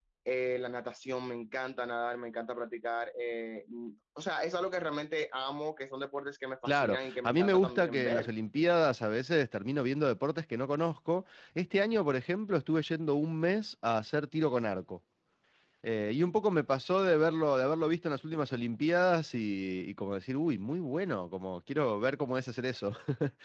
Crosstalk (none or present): present